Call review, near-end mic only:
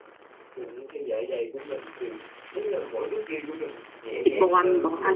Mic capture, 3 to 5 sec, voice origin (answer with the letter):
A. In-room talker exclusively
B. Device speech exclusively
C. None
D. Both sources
D